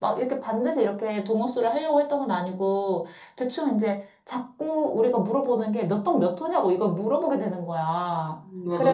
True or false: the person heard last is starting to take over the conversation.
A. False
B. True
A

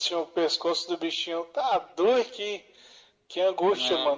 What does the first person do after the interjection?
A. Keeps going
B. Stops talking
B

